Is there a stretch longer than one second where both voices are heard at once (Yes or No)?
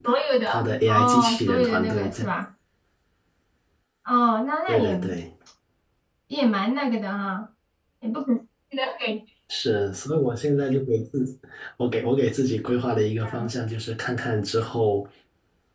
Yes